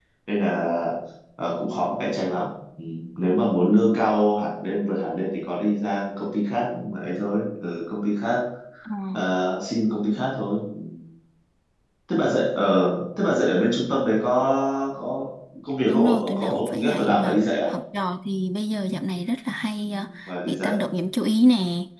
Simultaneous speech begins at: 15.9 s

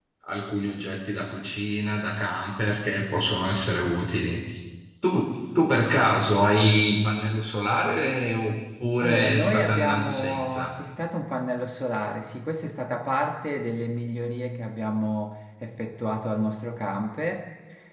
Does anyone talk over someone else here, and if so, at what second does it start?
9.0 s

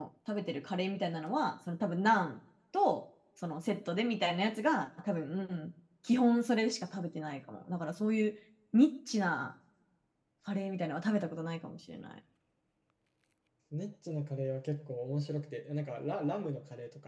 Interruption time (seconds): none

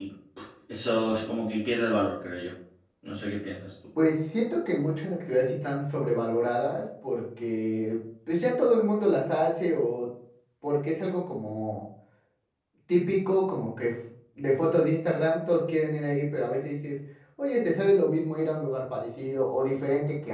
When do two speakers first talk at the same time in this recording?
none

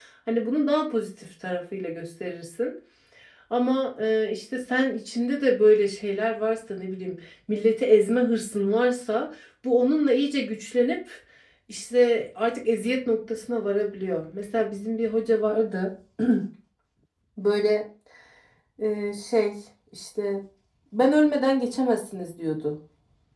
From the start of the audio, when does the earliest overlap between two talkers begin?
none

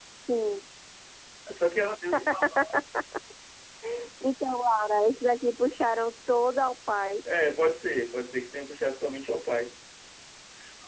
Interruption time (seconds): none

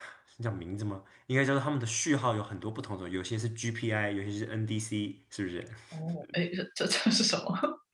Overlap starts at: none

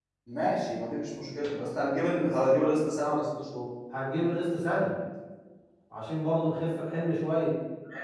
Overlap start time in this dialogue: none

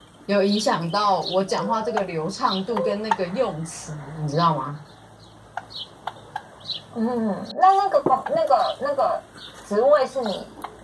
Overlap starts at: none

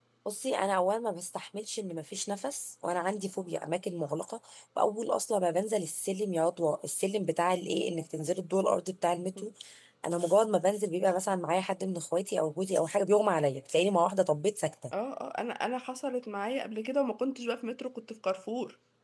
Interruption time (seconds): none

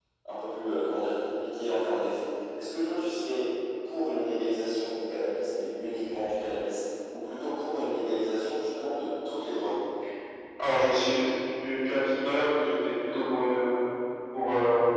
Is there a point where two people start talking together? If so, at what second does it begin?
none

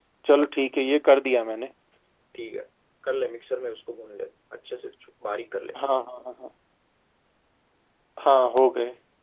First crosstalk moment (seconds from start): none

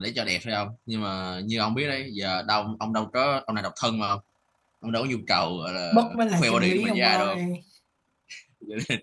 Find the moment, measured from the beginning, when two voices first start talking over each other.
5.9 s

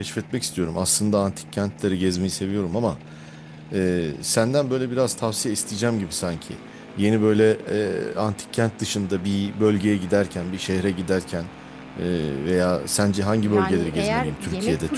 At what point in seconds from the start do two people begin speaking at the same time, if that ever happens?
13.4 s

